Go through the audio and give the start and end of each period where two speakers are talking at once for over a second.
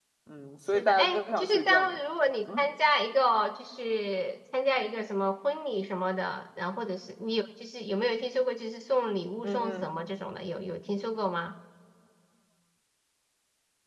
0.7-2.0

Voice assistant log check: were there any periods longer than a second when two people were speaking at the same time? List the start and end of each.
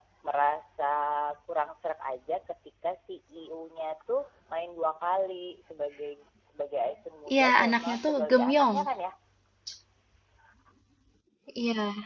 7.3-8.8

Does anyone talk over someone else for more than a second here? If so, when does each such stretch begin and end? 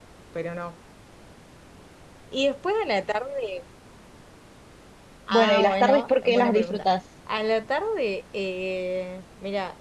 5.3-6.9

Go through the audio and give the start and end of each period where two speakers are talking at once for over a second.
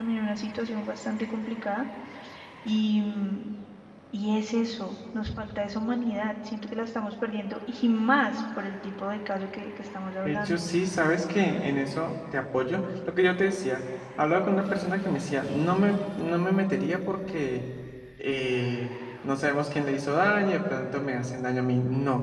none

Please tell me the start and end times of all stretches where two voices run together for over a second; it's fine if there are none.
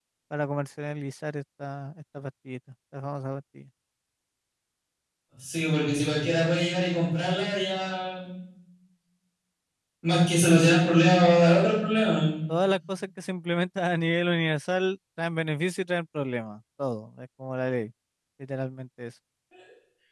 none

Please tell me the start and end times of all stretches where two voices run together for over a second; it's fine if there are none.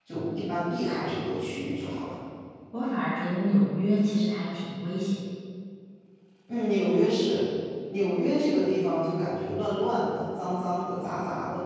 none

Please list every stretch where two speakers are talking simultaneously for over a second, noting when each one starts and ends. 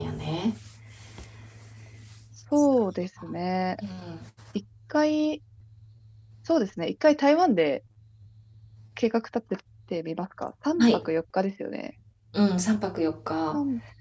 none

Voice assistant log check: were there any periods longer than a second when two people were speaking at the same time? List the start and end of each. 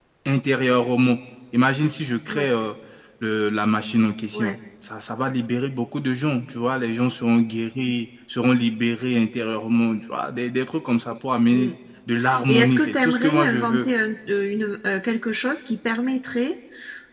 12.5-13.9

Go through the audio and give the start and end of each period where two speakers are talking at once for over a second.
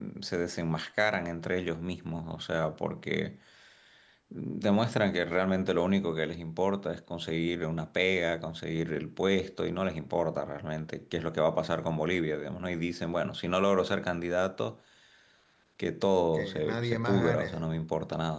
16.3-17.8

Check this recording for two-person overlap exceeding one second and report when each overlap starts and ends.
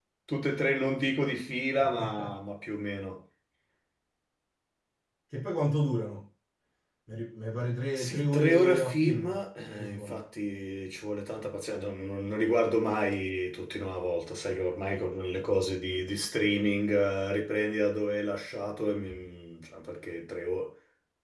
8.0-9.2

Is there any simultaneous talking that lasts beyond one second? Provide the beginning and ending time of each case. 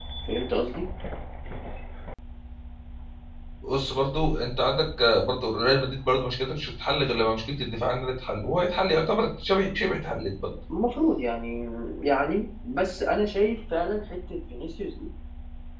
none

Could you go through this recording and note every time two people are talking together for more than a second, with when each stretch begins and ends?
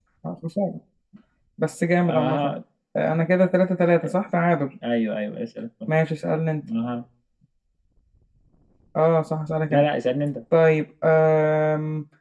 none

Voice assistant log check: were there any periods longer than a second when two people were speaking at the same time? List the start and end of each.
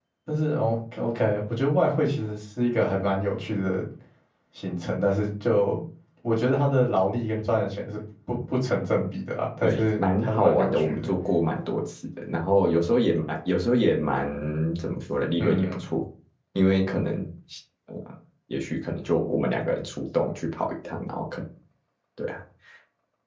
9.6-11.1

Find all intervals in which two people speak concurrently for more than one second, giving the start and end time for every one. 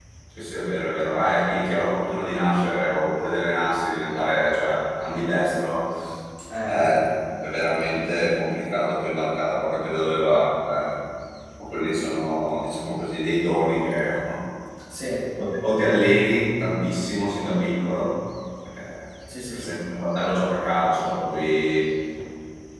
none

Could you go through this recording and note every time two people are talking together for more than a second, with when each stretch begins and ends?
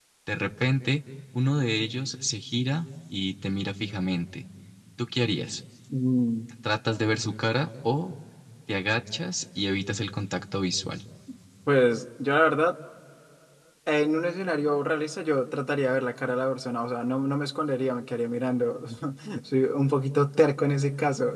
none

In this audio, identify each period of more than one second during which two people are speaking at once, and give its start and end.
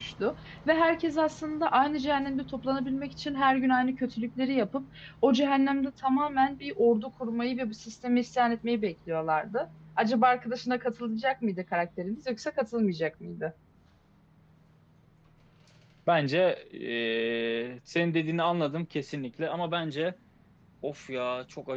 none

